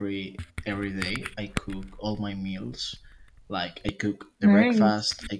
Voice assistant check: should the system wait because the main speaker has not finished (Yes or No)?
Yes